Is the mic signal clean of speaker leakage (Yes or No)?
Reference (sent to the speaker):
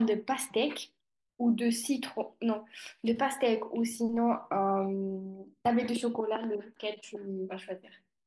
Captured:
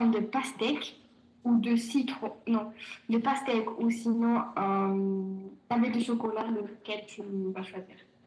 No